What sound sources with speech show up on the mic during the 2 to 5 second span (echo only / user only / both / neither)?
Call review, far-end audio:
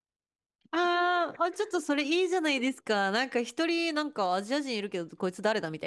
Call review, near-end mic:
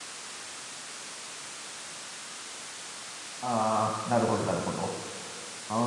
user only